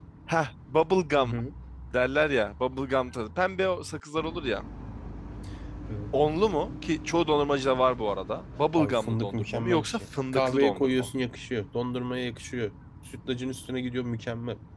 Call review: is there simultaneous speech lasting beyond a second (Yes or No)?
Yes